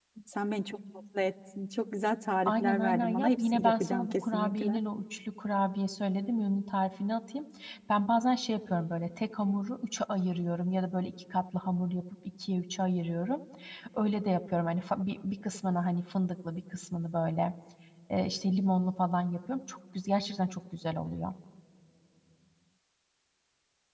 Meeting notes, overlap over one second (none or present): present